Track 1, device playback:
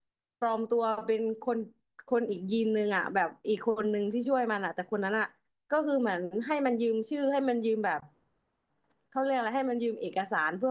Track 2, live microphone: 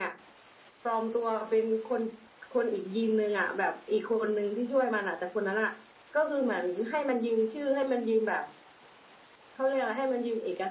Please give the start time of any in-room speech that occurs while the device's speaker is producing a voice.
none

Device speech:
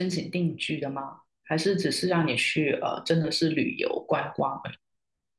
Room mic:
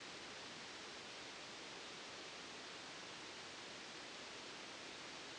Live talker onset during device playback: none

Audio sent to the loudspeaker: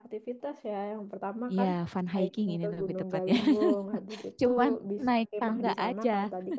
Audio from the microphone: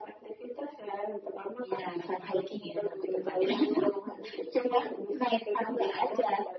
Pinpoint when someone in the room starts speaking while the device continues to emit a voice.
none

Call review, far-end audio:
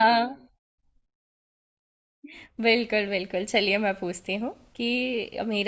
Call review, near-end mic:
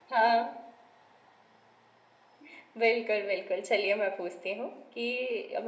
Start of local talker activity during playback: none

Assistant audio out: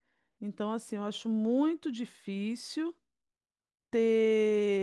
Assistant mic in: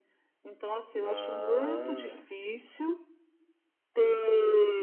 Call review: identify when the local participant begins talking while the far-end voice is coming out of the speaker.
1.0 s

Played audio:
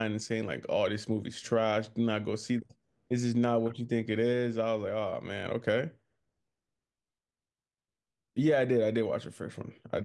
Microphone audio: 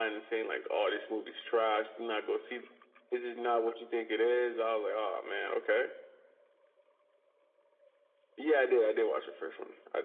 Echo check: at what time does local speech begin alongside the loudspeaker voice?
none

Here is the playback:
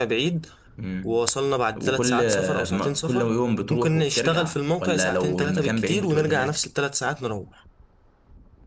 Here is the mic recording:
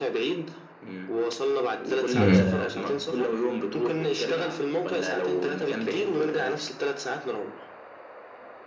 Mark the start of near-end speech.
2.1 s

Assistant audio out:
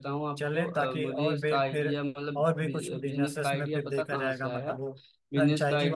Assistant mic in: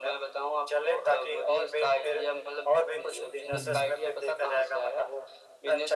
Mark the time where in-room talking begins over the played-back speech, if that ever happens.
3.5 s

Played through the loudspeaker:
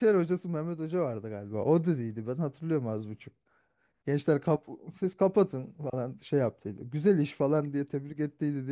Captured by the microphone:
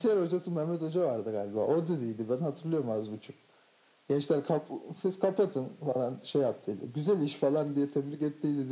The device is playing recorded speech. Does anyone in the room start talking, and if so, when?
none

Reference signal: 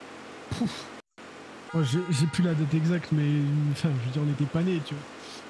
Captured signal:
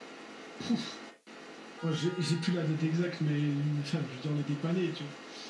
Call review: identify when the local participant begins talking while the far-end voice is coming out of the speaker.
none

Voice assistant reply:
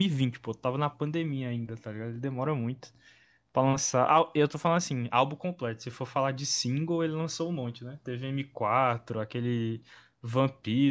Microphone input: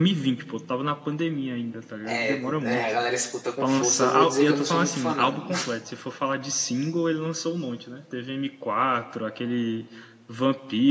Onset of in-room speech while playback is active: 2.1 s

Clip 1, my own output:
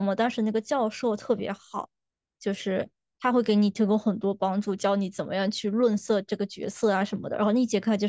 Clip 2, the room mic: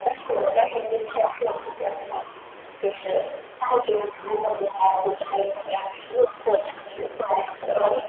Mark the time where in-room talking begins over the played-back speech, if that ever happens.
none

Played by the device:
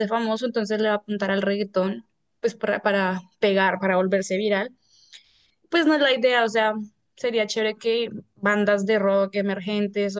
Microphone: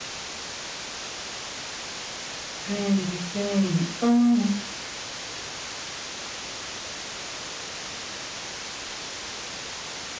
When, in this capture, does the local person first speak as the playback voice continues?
2.6 s

